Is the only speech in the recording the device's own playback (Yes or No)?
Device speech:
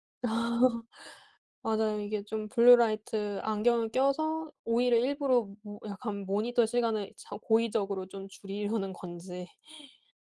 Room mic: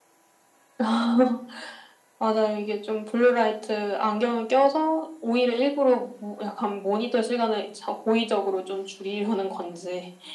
Yes